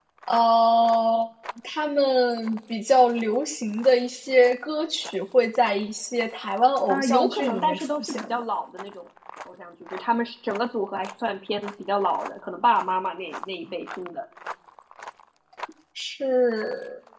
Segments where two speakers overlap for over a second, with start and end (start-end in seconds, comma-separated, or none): 6.9-8.4